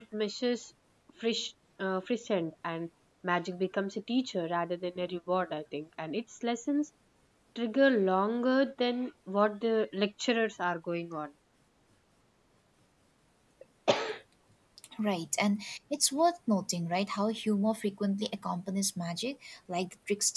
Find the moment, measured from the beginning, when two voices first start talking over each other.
none

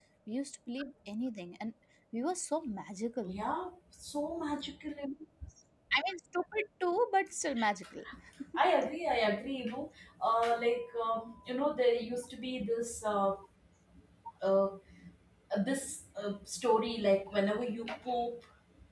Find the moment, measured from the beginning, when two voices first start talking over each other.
none

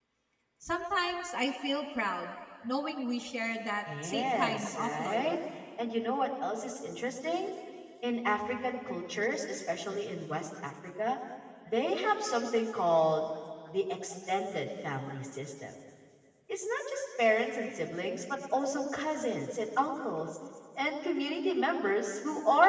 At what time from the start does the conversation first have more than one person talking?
3.9 s

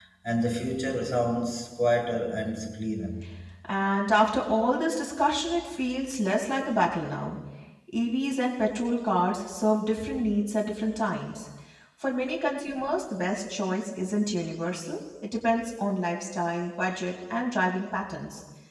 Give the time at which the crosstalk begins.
none

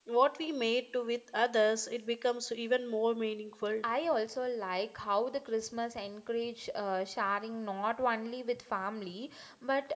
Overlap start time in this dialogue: none

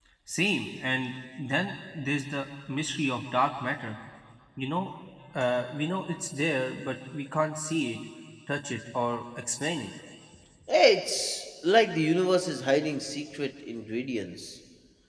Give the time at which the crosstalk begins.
none

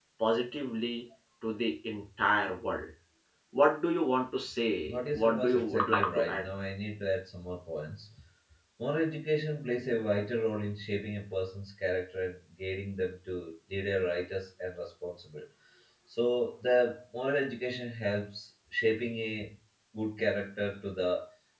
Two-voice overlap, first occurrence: 4.9 s

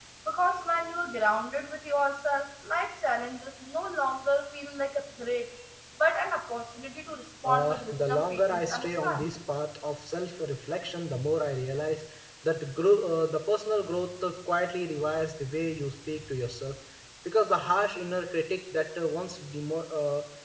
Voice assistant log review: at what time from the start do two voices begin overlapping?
7.4 s

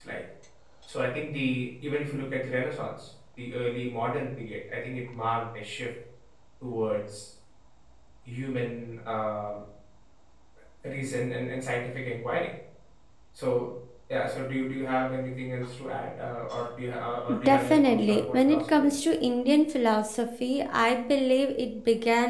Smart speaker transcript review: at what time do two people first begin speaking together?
17.3 s

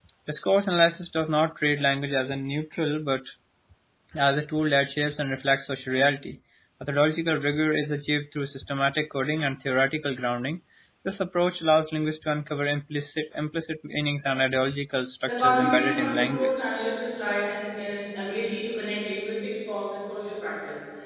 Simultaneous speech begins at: 15.3 s

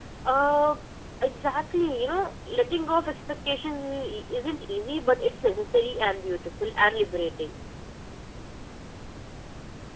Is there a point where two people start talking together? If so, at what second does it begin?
none

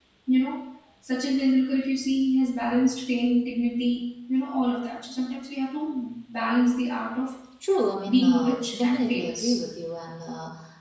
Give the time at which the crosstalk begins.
8.1 s

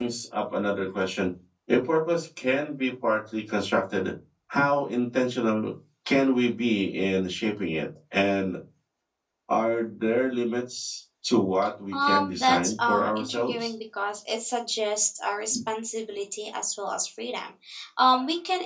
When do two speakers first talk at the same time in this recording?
11.9 s

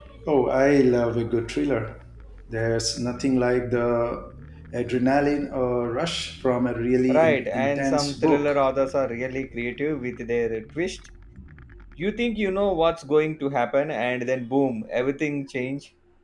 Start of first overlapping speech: 7.1 s

